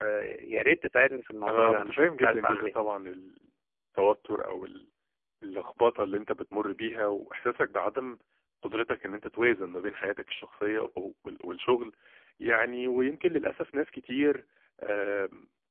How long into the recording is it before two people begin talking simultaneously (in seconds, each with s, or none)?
1.5 s